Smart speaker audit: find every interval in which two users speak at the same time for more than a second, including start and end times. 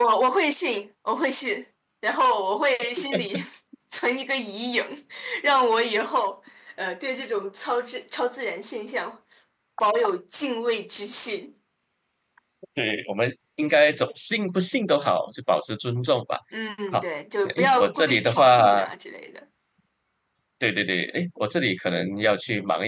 17.4-18.8

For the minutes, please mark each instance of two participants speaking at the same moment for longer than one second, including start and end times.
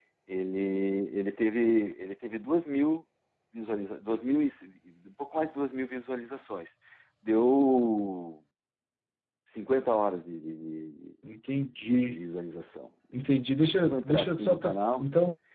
13.8-15.0

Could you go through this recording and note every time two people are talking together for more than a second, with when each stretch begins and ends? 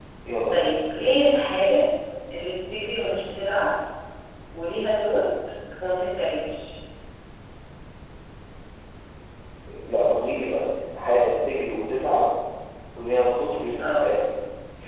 none

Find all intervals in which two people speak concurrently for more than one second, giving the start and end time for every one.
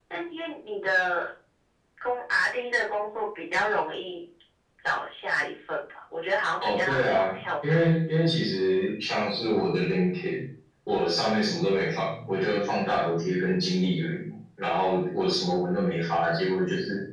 6.6-8.3

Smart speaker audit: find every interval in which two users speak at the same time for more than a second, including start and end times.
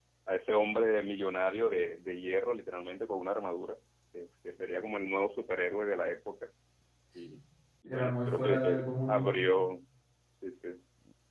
7.9-9.4

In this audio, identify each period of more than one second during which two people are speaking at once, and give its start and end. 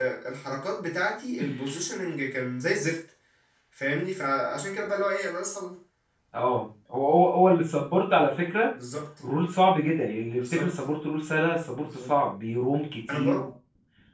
none

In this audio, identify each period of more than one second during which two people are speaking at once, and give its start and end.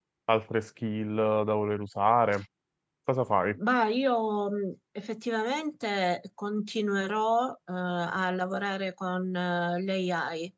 none

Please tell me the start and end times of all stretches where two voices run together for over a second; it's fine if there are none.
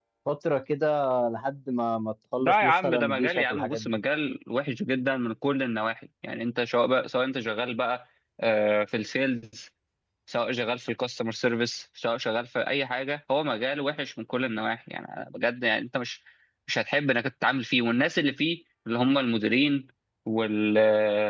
2.4-3.8

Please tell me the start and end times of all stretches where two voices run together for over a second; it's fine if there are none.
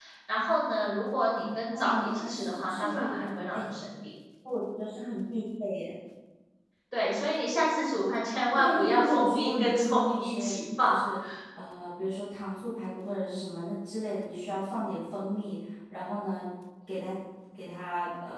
1.8-3.6, 8.5-11.0

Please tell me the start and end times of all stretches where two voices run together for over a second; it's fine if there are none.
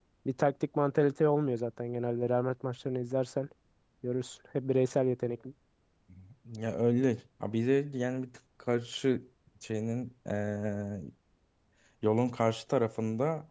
none

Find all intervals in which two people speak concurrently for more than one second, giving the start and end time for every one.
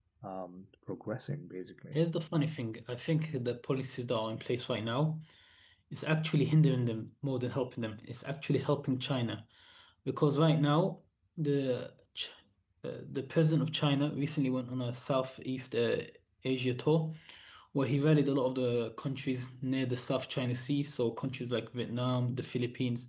none

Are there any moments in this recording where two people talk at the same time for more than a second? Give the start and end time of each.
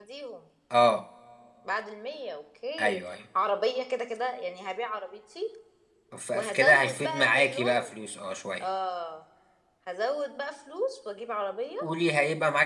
6.3-7.7

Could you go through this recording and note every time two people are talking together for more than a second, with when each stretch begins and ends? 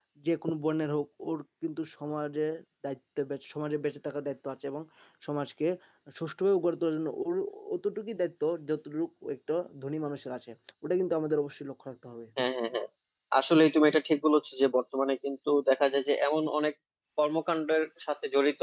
none

